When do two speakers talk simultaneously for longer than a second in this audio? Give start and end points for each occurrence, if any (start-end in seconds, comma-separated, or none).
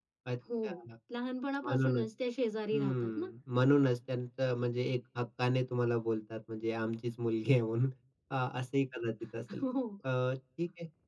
none